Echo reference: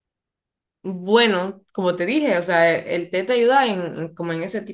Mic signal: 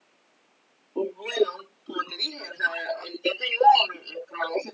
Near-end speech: none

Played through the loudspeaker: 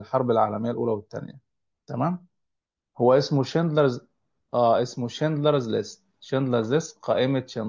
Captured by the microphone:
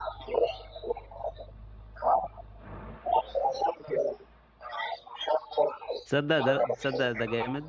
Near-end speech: present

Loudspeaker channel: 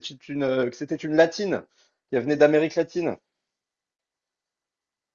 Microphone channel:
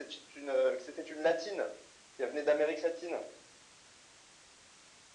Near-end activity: none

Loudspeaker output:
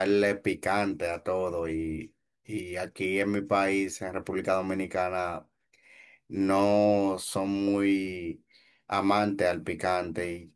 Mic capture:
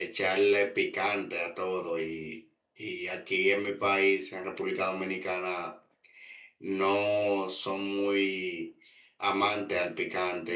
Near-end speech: none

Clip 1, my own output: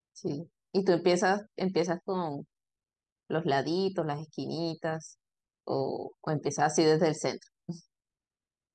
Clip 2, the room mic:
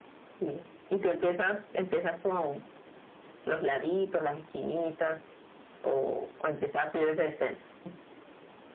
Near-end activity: none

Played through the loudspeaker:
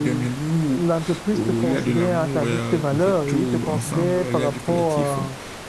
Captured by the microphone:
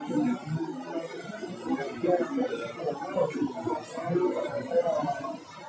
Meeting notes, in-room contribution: none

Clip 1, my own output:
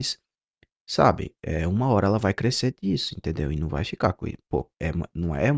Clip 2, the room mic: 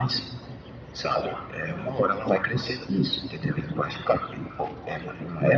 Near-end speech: none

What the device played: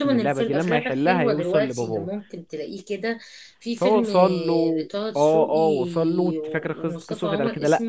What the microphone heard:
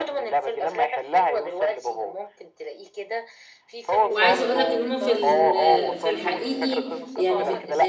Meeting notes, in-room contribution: present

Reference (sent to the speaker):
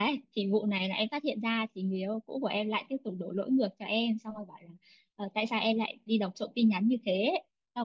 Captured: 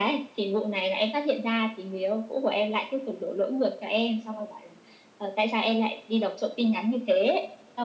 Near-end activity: none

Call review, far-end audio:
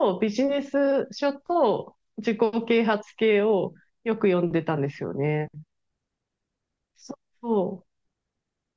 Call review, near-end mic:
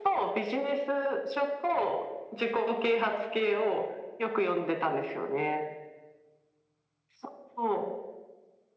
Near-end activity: none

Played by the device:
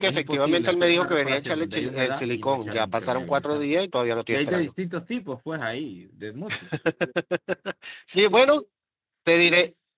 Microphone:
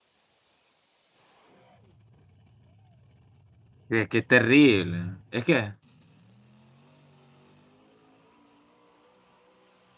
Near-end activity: present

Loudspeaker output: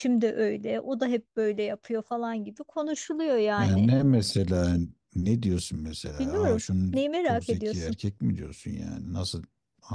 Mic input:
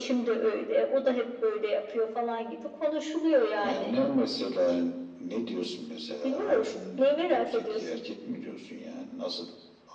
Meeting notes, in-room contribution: none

